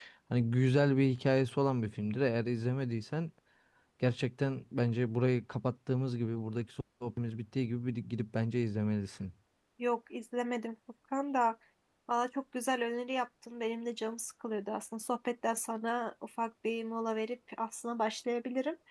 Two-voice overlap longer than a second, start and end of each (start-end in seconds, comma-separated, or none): none